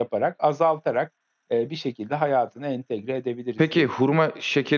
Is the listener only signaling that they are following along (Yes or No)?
No